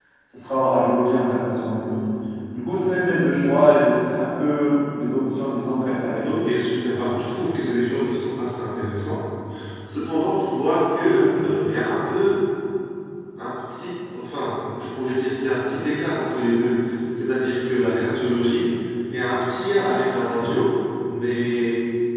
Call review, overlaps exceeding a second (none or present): none